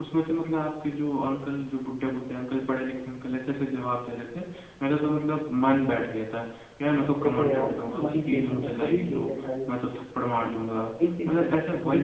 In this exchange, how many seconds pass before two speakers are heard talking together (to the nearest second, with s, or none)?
7 s